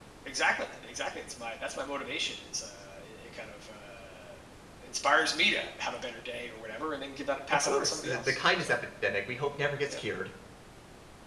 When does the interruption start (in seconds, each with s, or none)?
7.5 s